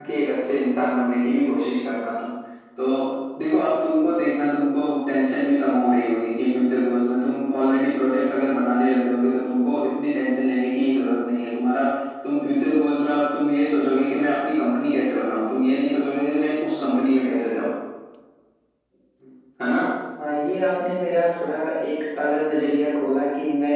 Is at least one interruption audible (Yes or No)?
No